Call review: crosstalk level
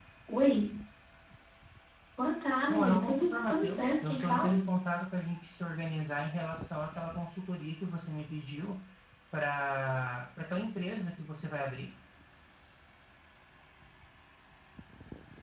present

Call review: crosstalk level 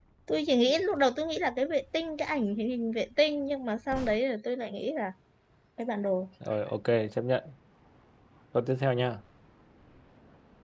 none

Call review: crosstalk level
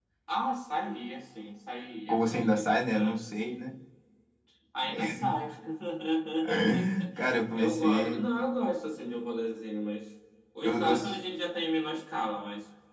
present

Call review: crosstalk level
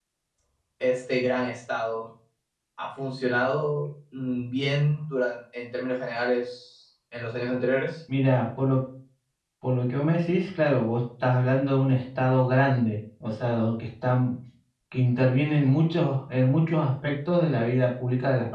none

